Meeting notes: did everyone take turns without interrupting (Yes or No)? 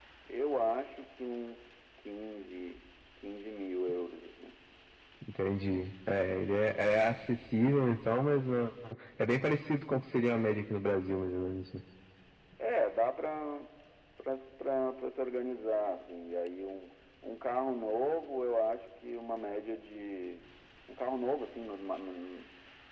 Yes